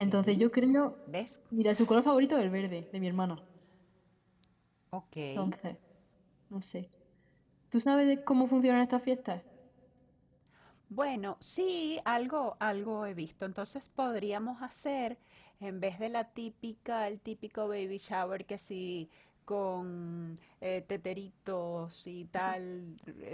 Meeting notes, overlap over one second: none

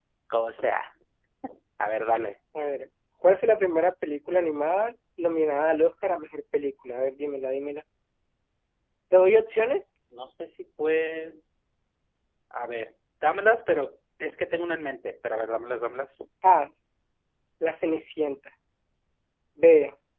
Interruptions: none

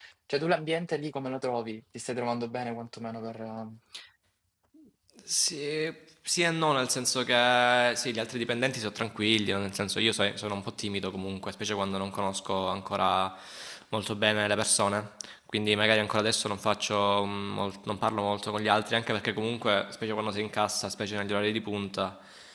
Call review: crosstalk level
none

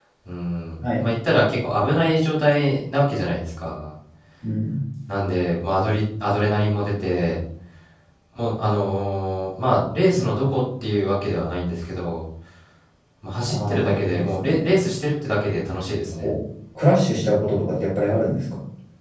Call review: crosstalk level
present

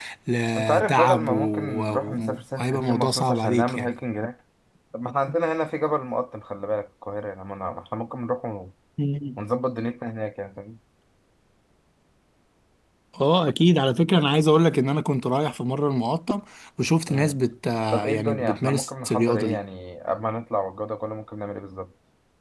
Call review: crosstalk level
present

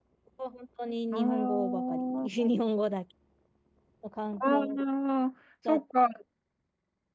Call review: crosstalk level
present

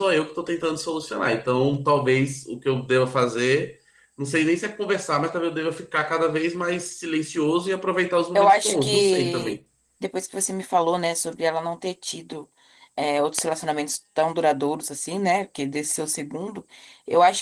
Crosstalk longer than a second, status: present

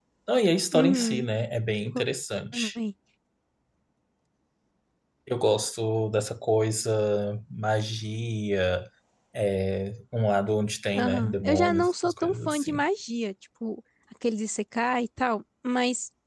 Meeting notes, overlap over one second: present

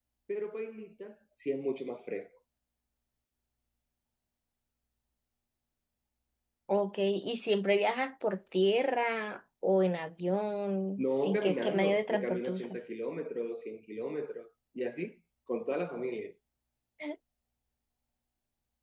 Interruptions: present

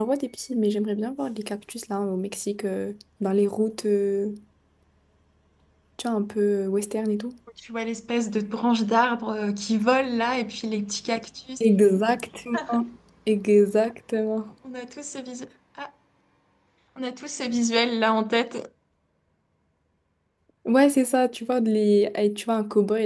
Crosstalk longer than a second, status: none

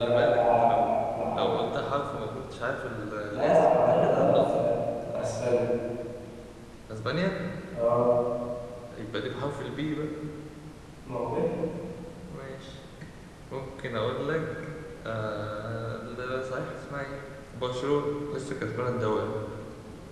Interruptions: present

